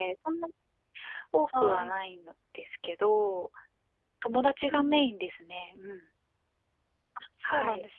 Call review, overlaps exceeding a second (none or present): none